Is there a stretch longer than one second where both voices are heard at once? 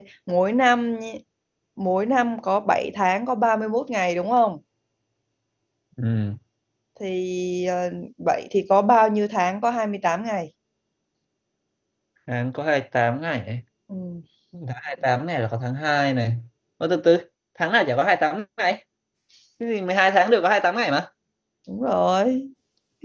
No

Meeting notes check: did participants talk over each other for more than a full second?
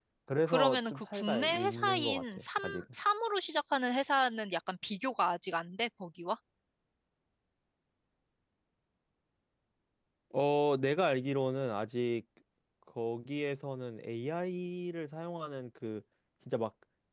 Yes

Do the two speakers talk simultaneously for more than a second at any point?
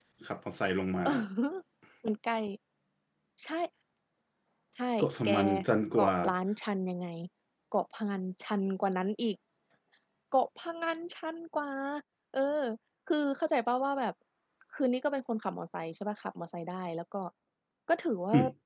No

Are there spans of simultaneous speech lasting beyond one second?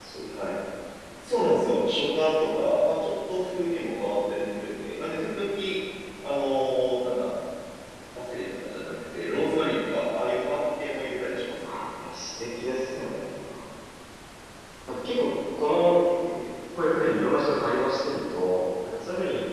No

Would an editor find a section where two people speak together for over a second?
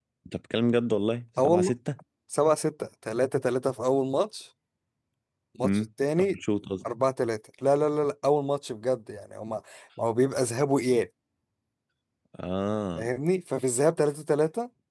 No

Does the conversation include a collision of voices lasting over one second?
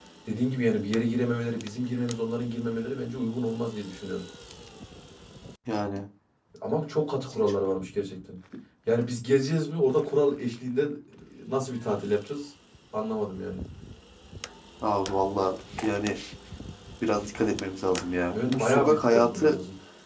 Yes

